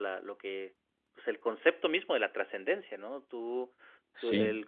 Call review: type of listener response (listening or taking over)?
listening